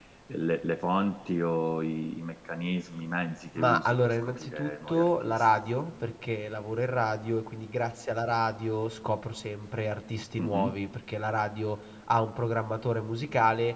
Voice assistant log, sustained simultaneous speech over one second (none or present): present